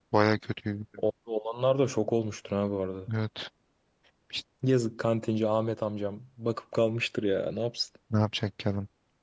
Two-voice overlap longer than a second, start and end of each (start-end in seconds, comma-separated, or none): none